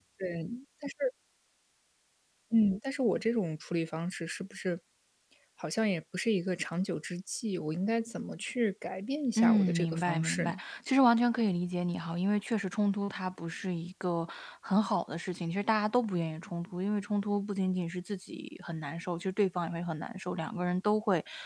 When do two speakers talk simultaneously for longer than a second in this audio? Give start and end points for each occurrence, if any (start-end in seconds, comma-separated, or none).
9.4-10.6